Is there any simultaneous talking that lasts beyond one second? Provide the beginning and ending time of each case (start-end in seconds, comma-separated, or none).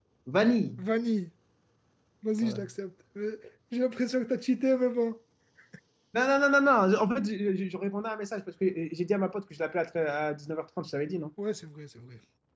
none